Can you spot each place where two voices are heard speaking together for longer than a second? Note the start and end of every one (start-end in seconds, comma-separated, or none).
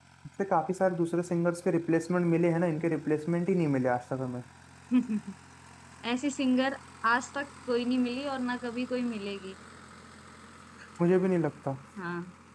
none